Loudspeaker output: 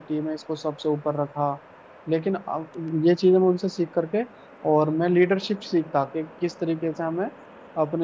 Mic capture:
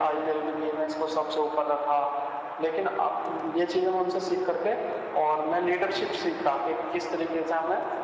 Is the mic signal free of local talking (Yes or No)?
Yes